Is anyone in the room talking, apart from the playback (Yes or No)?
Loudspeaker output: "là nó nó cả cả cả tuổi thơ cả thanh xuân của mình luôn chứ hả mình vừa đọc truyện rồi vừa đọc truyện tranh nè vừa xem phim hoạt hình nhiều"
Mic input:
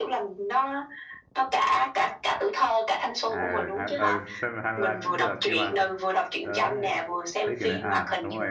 Yes